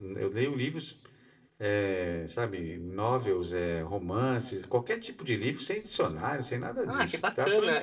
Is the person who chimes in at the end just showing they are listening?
No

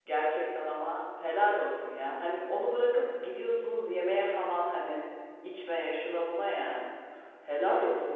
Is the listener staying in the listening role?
Yes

